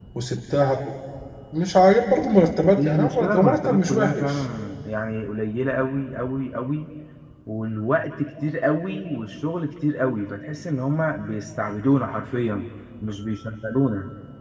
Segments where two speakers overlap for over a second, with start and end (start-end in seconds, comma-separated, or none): 2.8-4.5